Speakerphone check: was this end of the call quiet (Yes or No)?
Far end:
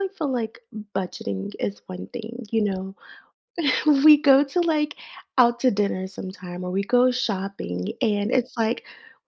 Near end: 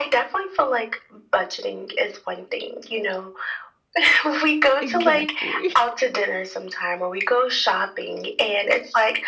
No